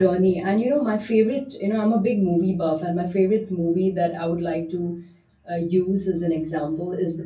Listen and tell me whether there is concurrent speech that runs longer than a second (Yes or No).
No